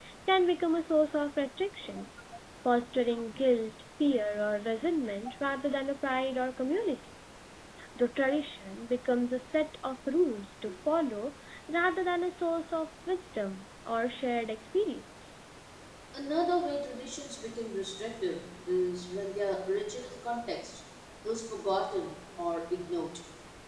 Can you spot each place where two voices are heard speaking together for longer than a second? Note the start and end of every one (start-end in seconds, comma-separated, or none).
none